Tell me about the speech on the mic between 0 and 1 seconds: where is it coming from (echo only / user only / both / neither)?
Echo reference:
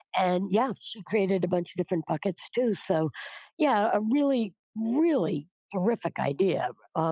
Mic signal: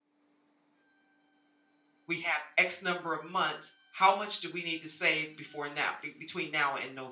neither